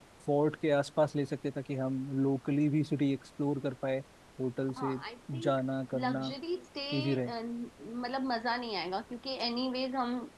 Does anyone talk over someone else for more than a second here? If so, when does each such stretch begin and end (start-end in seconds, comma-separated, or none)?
none